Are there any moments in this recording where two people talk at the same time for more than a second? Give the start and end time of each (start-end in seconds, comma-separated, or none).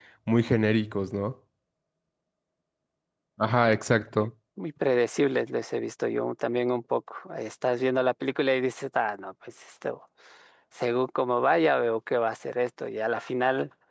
none